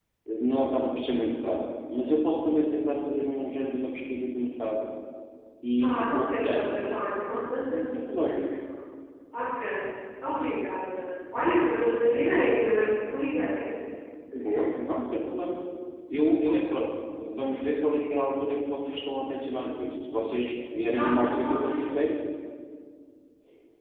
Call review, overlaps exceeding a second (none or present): present